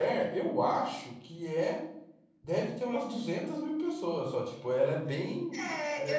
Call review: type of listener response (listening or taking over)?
taking over